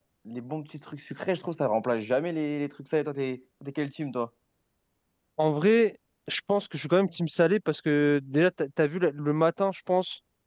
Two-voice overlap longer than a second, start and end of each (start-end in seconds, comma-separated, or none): none